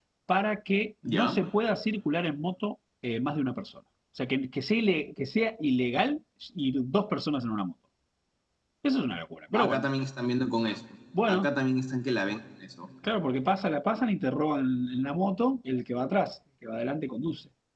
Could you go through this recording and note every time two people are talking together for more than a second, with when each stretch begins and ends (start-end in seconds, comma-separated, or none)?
none